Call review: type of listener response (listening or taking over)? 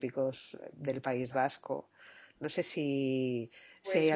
listening